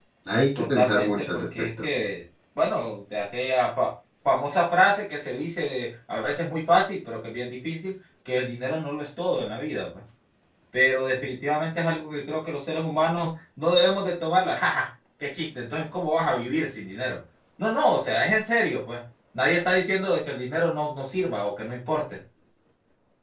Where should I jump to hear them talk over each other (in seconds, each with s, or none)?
0.6 s